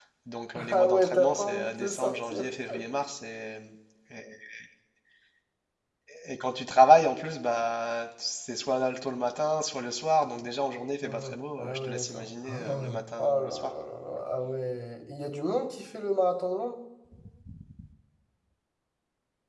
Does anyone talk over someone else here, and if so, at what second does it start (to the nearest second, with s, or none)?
1 s